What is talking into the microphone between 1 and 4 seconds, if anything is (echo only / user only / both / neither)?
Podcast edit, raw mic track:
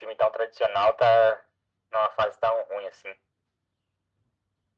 echo only